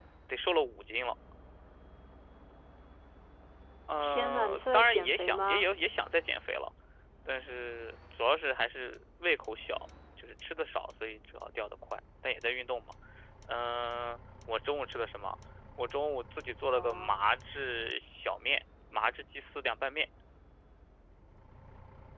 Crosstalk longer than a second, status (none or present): present